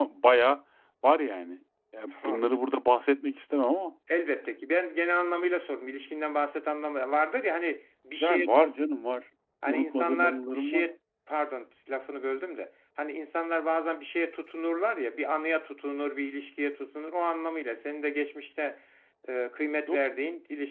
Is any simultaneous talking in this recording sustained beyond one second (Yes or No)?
Yes